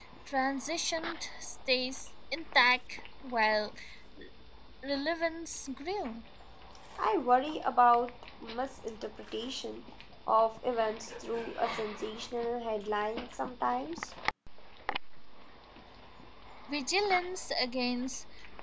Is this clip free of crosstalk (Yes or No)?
Yes